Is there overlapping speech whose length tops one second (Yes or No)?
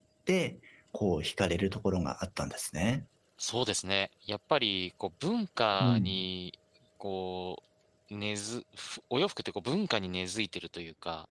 No